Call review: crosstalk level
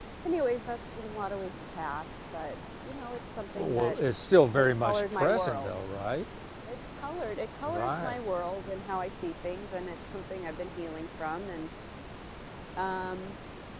present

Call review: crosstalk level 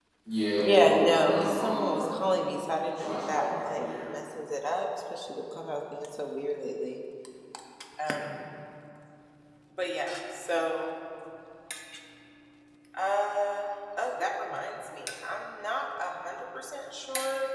present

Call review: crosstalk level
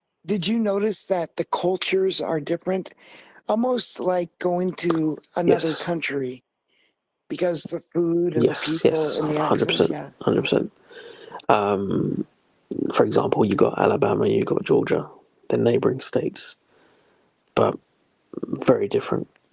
present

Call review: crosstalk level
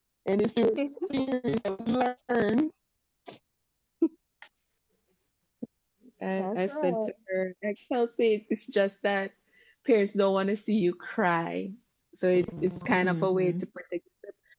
present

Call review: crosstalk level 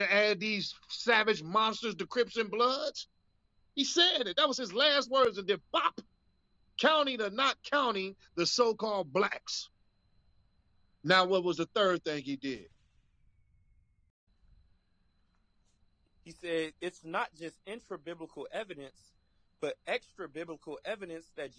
none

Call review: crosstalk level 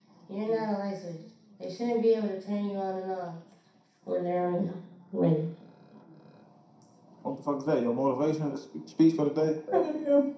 none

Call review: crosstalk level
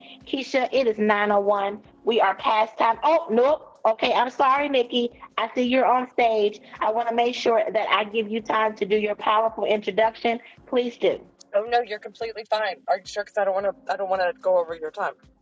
none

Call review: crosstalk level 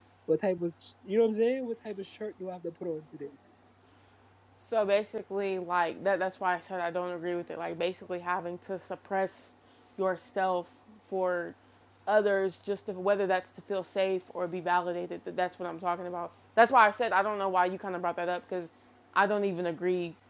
none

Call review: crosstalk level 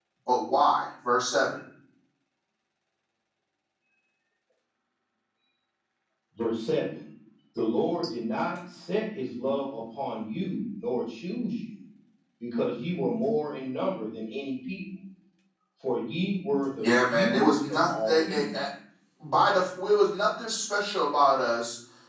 present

